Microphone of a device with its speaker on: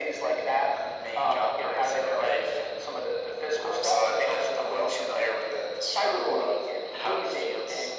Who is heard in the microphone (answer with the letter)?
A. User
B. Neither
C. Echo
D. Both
C